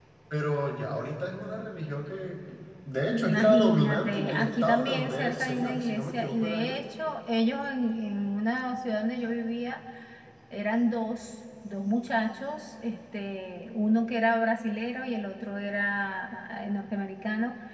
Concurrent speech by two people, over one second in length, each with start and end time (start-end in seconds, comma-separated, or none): 3.1-6.7